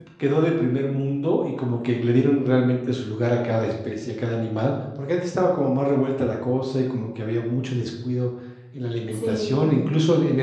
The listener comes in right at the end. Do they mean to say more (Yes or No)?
No